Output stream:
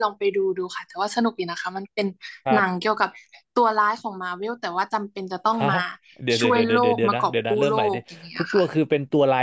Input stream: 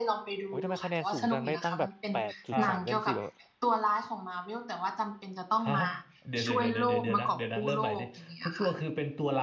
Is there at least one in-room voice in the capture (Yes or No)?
Yes